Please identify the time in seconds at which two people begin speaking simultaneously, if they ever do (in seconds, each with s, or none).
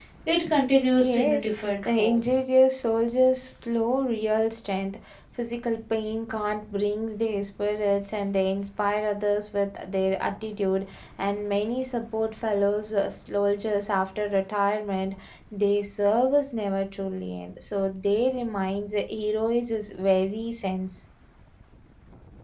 1.0 s